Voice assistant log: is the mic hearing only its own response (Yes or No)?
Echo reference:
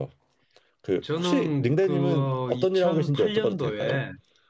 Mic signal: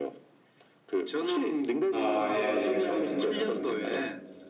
No